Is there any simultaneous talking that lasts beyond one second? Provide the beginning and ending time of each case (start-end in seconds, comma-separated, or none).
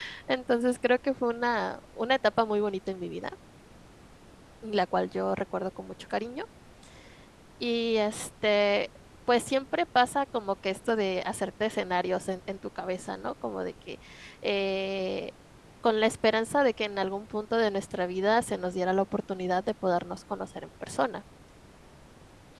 none